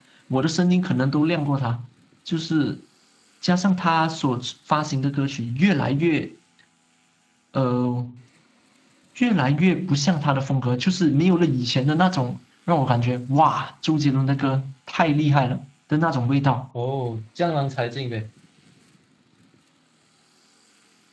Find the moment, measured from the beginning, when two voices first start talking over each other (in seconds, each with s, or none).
none